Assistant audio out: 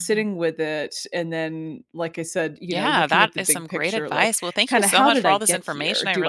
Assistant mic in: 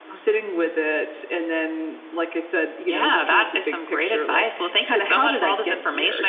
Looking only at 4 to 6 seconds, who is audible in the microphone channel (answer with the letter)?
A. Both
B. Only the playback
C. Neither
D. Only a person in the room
B